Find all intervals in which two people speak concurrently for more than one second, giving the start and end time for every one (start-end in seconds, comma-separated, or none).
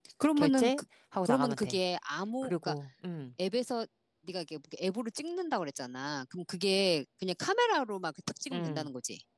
none